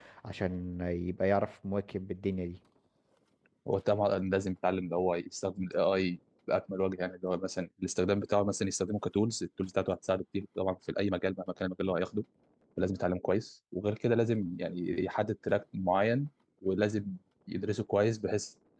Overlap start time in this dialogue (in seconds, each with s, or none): none